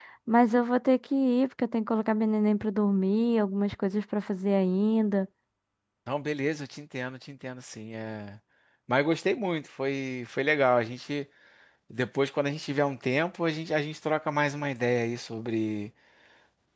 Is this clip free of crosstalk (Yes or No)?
Yes